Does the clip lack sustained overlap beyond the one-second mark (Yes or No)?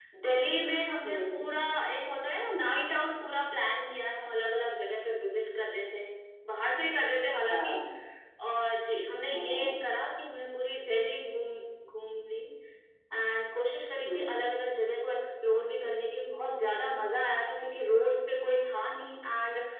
Yes